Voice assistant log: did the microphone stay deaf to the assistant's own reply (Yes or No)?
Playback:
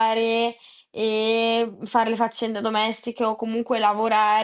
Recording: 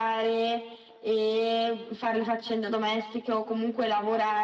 No